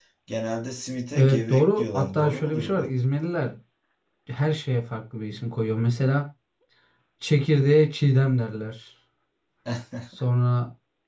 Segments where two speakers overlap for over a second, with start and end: 1.1-2.9

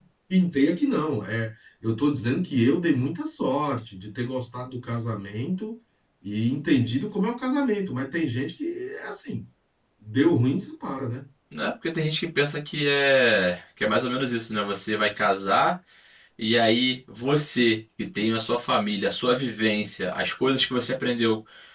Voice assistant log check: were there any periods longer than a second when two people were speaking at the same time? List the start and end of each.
none

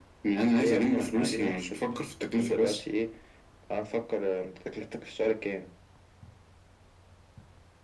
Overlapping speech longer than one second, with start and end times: 0.6-1.8

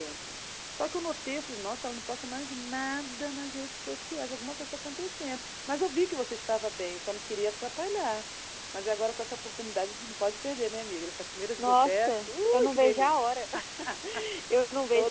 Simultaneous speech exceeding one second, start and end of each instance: 11.6-13.2

